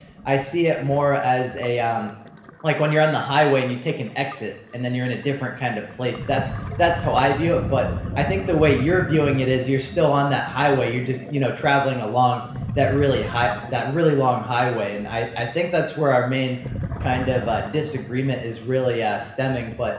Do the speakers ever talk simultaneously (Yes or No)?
No